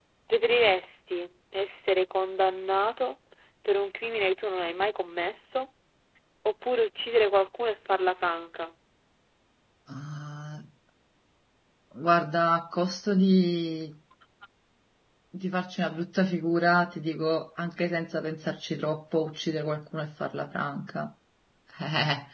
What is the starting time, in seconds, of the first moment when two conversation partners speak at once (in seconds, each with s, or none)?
none